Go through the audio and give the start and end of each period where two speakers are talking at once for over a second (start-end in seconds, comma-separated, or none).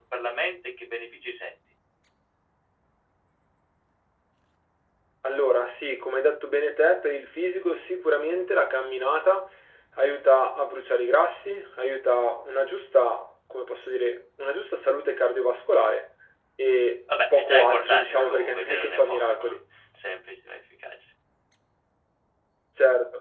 17.3-19.6